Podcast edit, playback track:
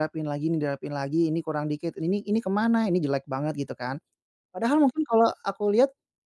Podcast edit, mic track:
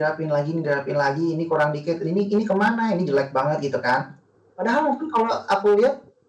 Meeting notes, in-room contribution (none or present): none